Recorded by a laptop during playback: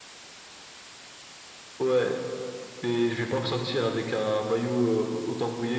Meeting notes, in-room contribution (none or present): none